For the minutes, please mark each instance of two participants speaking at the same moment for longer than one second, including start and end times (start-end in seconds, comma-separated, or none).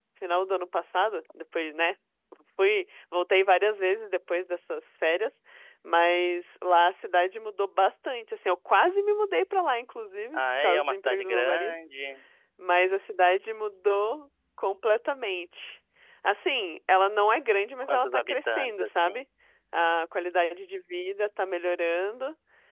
10.3-11.8, 17.8-19.2